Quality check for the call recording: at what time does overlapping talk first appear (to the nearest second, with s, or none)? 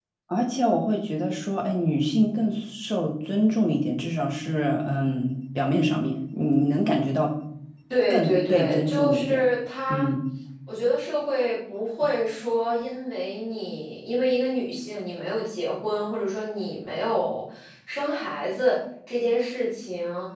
8 s